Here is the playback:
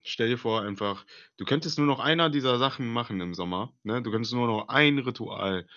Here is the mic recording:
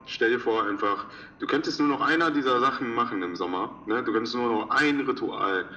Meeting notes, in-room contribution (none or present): none